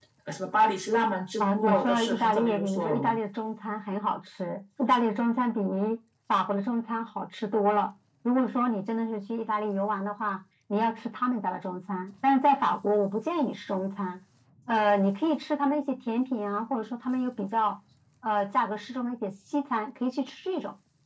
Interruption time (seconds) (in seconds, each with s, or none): 1.4 s